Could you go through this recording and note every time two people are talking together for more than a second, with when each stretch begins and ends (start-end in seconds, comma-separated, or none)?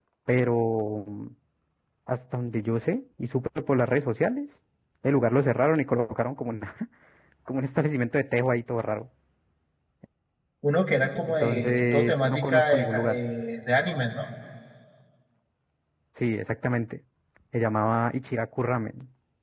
11.4-13.2